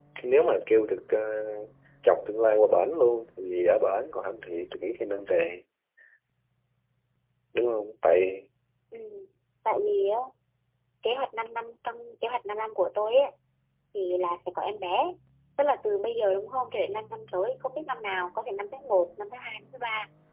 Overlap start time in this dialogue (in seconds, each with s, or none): none